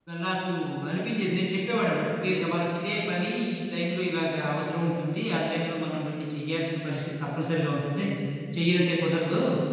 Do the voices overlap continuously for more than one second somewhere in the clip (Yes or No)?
No